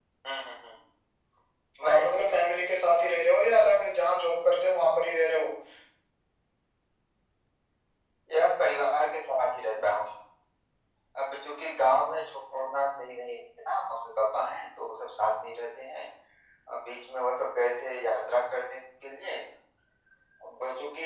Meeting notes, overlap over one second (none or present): none